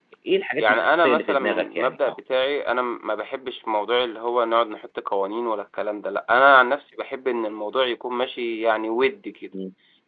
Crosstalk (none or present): present